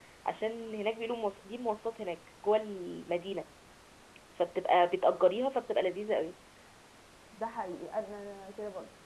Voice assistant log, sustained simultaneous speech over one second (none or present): none